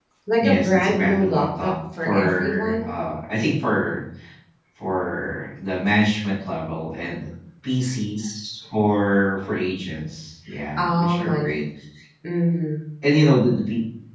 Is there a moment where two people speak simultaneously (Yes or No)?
Yes